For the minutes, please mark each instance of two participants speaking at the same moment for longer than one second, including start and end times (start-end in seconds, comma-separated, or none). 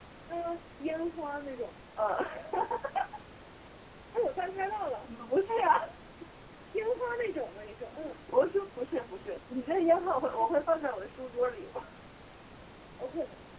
none